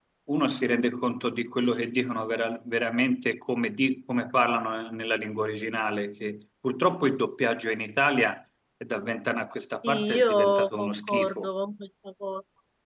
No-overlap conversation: No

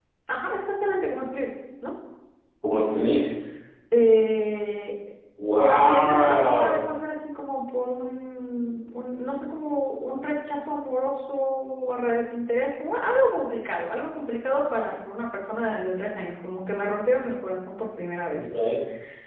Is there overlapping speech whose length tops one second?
Yes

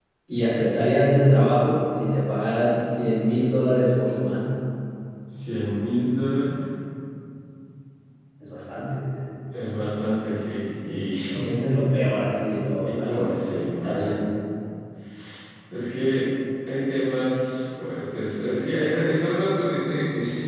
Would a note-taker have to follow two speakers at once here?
Yes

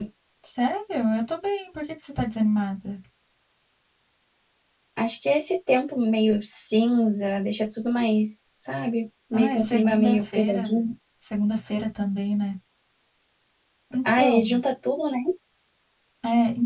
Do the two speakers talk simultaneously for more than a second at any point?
Yes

